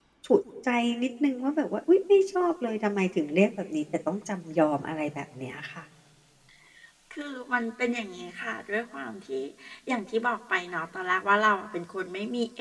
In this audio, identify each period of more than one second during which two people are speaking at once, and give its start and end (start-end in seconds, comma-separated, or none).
none